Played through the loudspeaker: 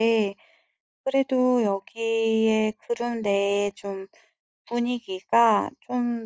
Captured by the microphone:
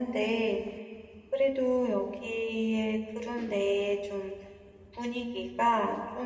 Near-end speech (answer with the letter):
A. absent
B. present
A